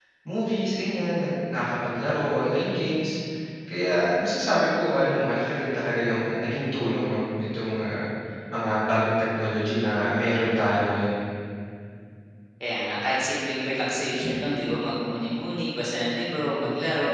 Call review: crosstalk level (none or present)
none